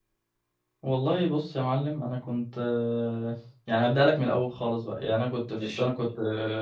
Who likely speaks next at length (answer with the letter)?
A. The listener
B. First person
B